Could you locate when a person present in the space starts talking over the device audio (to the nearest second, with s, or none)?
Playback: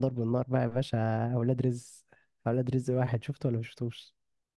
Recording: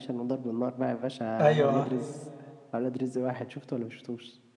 1 s